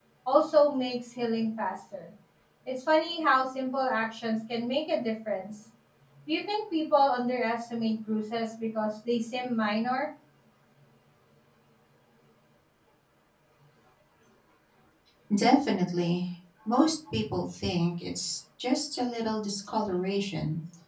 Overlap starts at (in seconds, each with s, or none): none